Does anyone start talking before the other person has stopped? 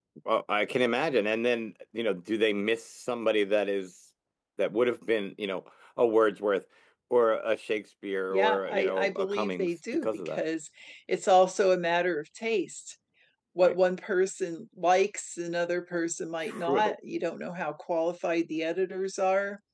Yes, from 8.3 s

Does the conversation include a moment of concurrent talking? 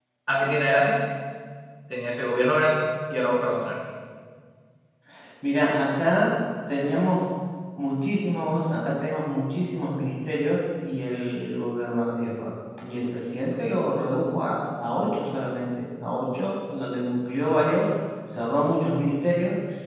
No

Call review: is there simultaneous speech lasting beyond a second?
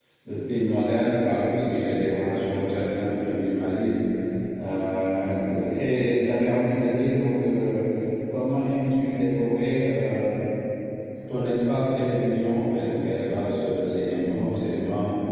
No

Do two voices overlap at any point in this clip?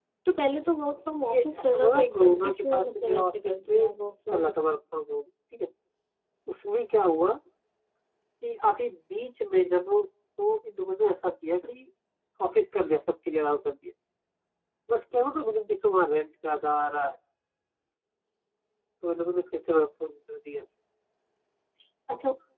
Yes, from 1.2 s

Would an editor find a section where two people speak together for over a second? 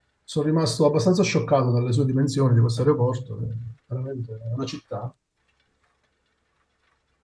No

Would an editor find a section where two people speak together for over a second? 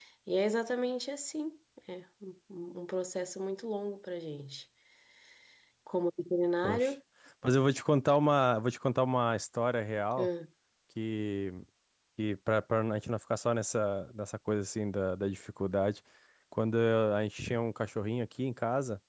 No

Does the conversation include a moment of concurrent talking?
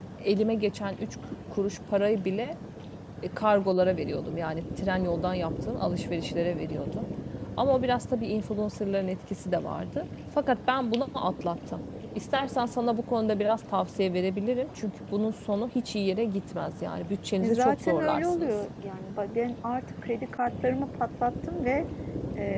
Yes, from 17.4 s

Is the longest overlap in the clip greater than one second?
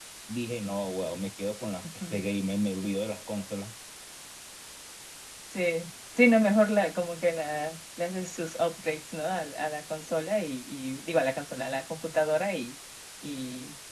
No

